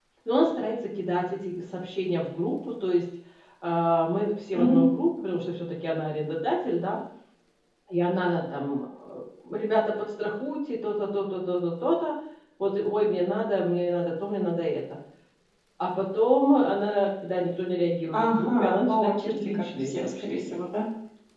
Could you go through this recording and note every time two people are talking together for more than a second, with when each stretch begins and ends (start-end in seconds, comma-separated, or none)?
18.1-20.6